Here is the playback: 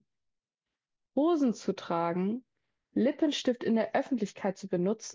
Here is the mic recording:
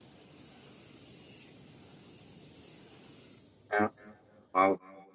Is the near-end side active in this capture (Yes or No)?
Yes